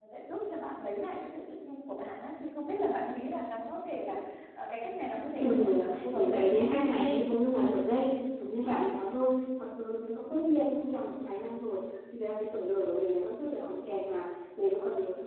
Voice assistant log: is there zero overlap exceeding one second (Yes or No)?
No